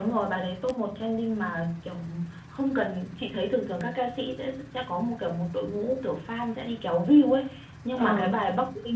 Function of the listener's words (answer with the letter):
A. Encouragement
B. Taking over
A